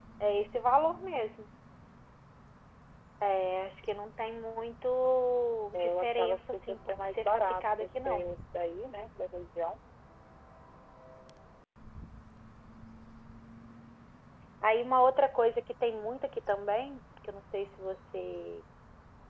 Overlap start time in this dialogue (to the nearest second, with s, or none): 6 s